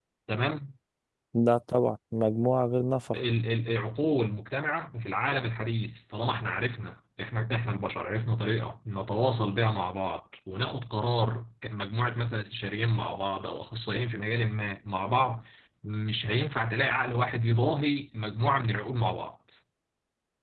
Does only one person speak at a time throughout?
Yes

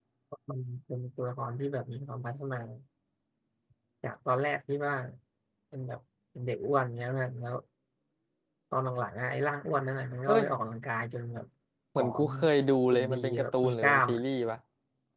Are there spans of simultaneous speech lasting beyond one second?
Yes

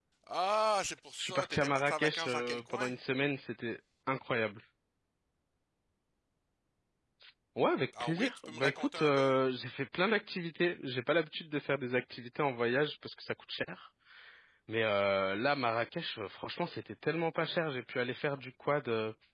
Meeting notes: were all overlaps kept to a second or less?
No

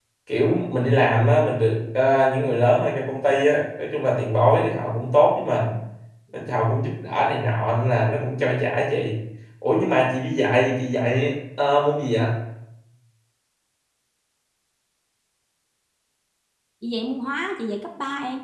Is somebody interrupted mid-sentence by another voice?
No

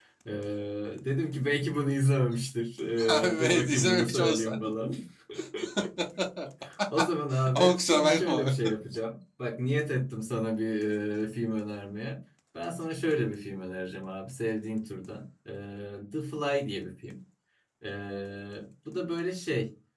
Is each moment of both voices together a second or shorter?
No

